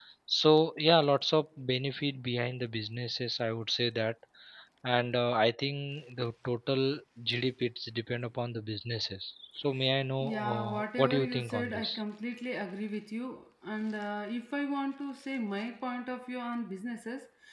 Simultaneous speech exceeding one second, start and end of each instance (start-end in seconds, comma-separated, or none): 10.2-12.0